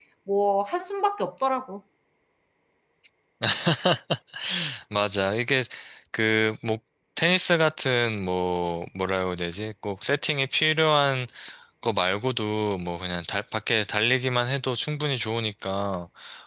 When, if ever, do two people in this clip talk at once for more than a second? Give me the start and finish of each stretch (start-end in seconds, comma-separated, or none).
none